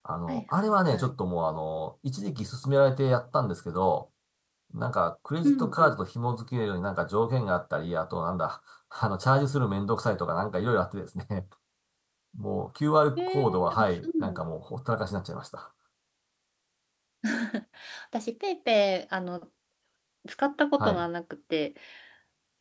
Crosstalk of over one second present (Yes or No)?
Yes